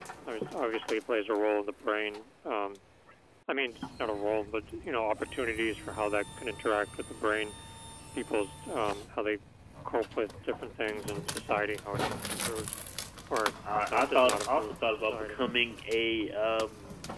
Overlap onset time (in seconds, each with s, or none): 13.9 s